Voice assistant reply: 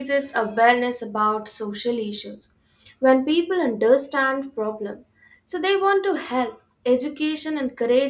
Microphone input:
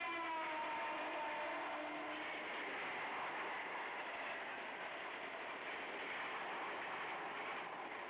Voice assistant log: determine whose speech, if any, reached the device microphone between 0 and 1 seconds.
neither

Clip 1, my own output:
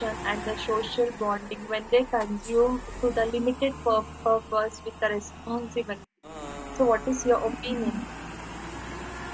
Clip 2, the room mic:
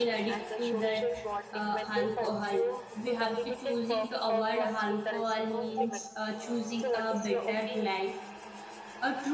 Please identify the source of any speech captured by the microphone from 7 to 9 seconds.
both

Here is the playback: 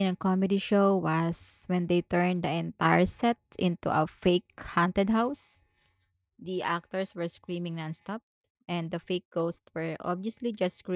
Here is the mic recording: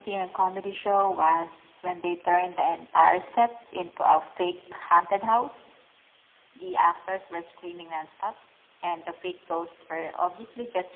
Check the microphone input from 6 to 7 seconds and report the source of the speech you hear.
echo only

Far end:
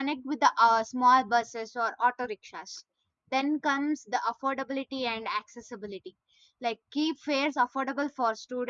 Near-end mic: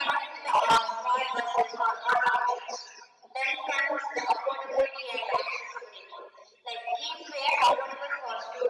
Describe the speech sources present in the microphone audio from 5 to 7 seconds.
echo only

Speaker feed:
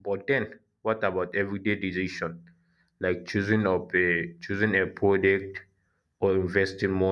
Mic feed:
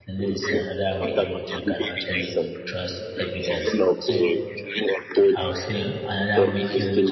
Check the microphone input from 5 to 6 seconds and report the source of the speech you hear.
both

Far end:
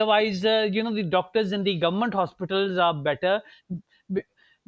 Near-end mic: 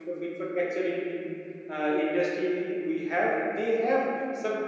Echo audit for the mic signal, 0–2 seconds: user only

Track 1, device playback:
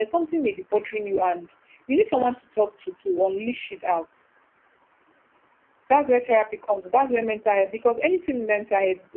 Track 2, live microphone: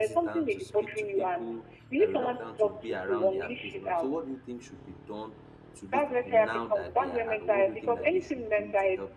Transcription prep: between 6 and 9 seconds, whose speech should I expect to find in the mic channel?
both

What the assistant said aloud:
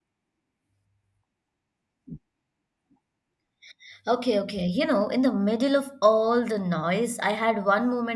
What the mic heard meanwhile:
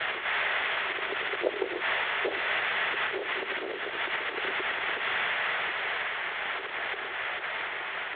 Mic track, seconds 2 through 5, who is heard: neither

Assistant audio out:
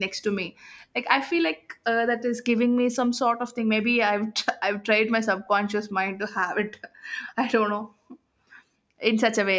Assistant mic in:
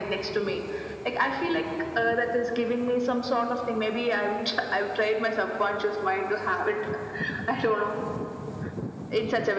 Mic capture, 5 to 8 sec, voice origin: echo only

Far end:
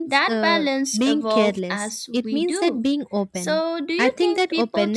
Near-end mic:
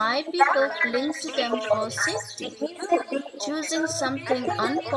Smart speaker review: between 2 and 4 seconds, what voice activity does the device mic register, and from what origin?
both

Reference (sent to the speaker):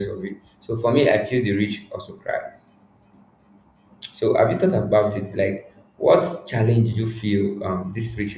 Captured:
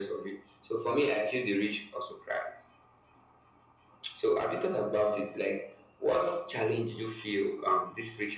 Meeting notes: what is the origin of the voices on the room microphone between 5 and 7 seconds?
echo only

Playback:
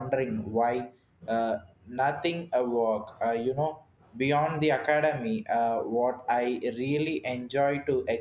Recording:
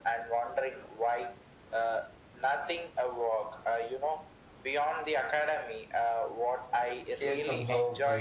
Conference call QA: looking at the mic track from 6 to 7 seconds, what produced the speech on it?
echo only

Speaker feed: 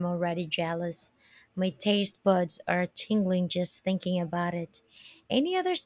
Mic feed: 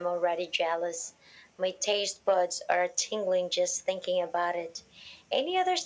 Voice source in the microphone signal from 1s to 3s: echo only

